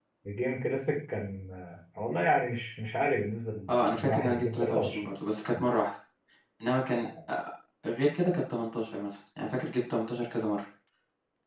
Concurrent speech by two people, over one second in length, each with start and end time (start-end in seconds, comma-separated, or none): 3.7-5.1